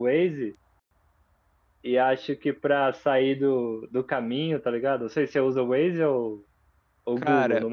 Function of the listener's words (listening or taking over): taking over